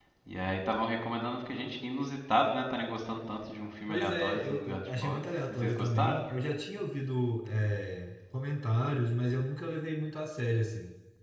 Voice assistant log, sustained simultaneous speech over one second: present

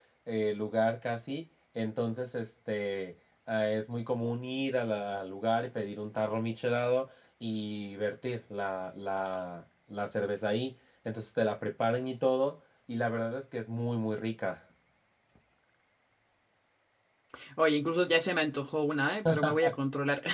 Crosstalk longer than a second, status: none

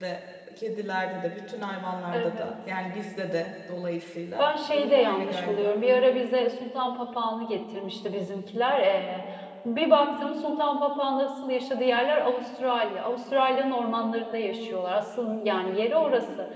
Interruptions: present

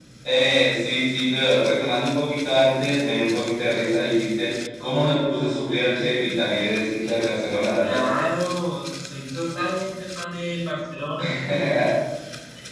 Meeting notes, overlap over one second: none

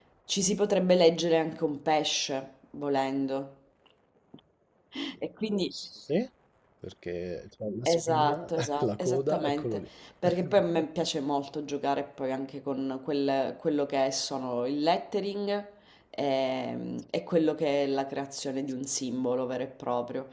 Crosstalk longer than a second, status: present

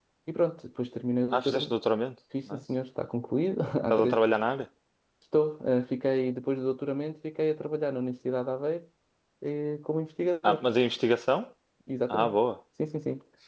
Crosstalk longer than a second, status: none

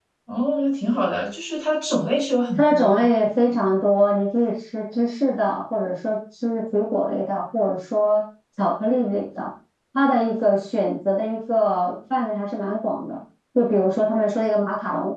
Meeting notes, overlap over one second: none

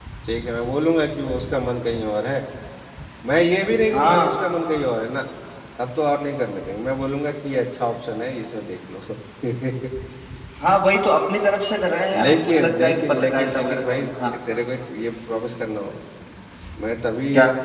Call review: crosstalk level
present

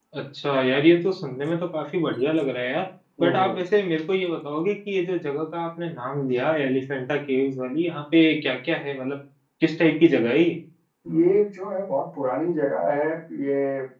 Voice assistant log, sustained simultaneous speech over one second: none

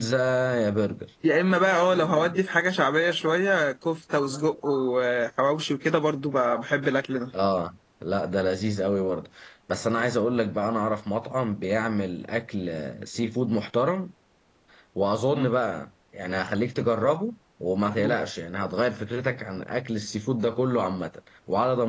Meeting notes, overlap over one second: none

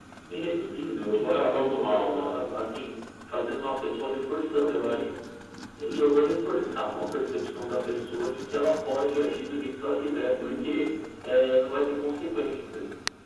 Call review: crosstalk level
present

